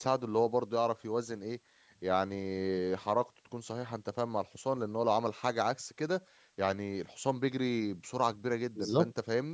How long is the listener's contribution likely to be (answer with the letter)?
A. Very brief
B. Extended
A